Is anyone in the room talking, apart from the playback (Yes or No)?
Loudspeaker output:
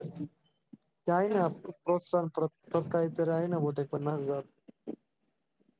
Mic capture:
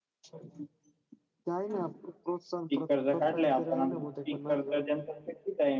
Yes